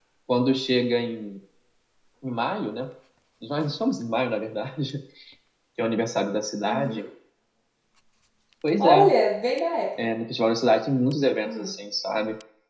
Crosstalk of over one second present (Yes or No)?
No